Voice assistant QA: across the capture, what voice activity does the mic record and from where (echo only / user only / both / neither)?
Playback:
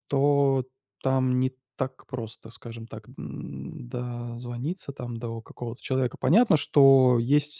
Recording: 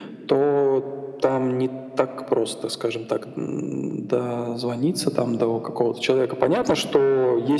echo only